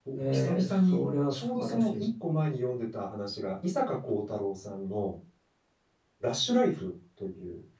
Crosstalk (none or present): present